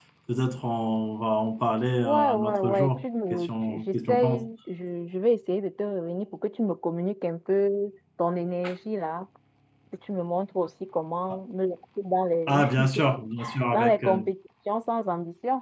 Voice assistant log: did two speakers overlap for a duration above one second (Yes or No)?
Yes